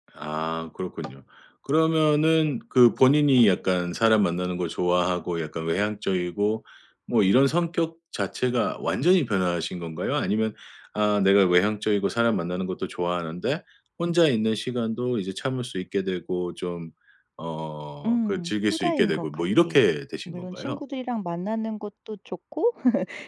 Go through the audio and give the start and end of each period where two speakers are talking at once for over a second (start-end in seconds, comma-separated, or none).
18.0-19.8